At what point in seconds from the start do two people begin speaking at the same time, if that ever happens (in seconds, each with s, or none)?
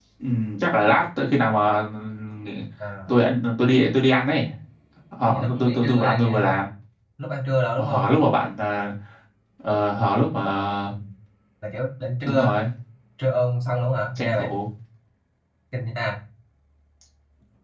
5.2 s